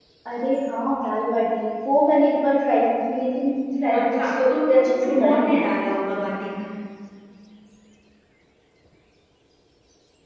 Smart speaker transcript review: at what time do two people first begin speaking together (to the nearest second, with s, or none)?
4 s